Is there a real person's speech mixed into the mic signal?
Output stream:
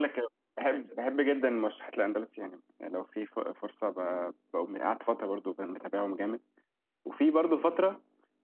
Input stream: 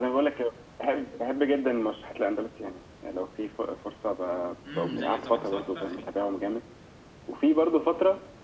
Yes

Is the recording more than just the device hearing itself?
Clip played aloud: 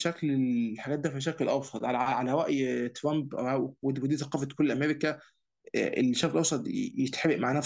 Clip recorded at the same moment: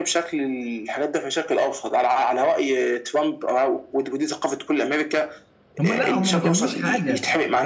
Yes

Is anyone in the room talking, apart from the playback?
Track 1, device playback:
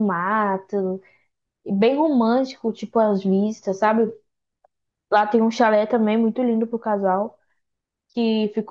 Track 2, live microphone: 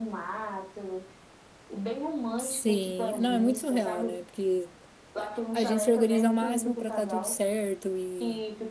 Yes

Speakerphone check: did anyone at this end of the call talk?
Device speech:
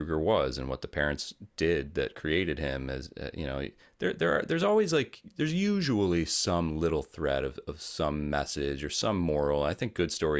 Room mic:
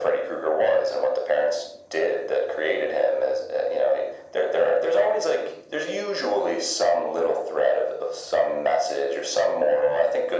No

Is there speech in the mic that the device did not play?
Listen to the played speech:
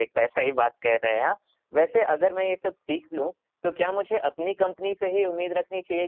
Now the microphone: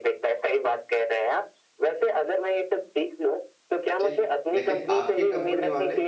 Yes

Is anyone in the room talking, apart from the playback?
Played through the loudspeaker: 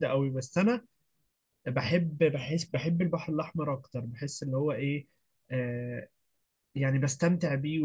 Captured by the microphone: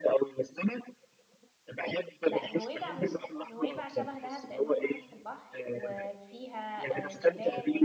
Yes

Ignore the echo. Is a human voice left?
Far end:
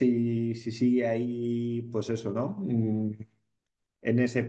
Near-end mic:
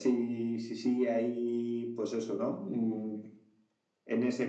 No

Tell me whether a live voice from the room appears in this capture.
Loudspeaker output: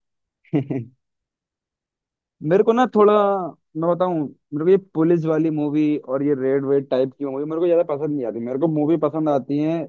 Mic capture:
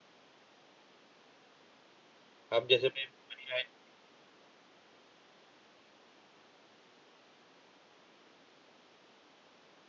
Yes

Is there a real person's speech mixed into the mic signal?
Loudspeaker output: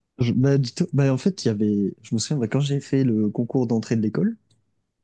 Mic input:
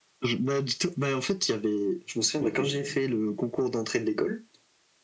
Yes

